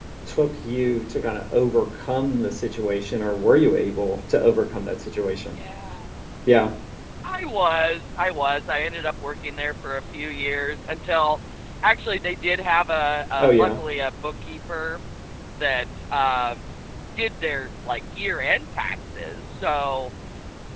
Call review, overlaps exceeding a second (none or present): none